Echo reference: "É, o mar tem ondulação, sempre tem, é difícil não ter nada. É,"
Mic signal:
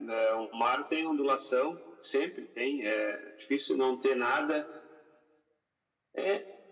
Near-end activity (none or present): none